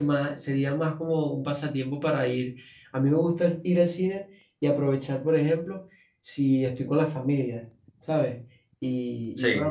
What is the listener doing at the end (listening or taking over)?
listening